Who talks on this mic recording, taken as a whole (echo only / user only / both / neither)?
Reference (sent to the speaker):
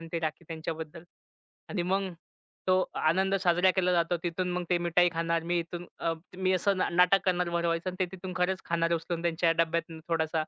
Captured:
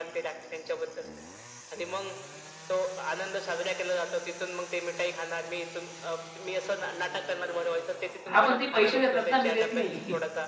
both